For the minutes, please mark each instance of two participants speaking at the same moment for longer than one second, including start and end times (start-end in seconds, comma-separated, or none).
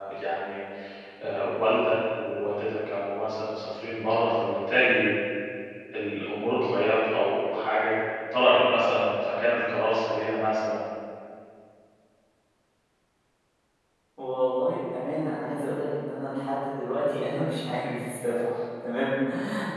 none